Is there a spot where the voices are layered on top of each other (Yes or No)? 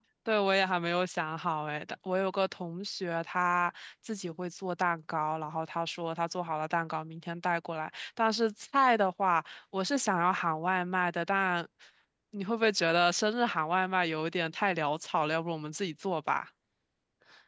No